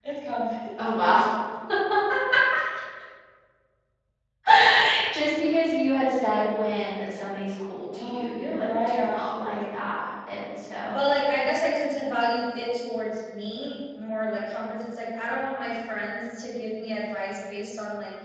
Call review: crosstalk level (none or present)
present